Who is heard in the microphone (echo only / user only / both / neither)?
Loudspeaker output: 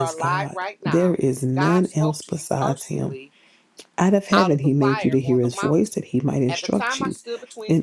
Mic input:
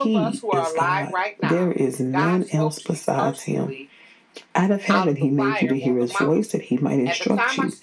echo only